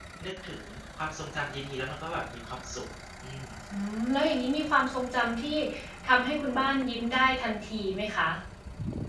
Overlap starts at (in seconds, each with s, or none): none